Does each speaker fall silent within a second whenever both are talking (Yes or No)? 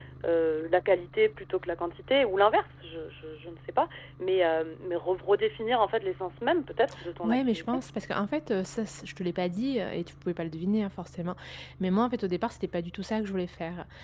Yes